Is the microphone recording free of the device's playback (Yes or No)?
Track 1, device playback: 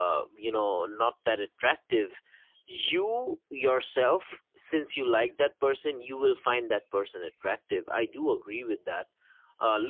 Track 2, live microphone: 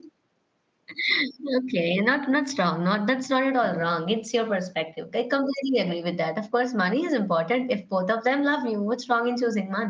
Yes